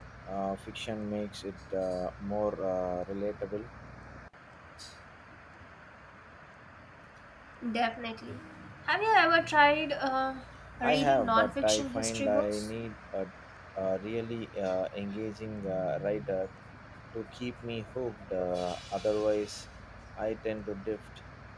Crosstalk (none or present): present